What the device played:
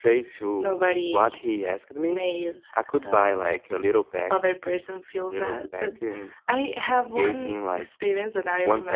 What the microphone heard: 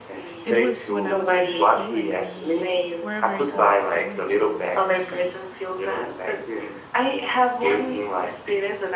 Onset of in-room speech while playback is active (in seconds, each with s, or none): 0.4 s